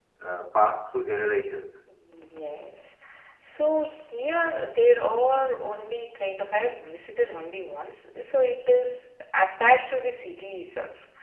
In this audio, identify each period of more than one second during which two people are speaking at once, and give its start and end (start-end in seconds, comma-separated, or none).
none